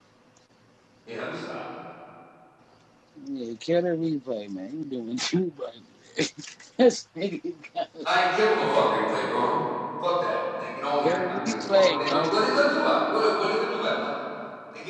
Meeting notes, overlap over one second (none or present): present